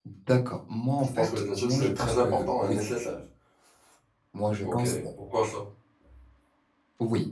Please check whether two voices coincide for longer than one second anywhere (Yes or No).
Yes